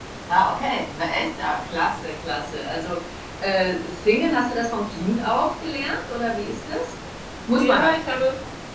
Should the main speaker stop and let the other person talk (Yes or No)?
Yes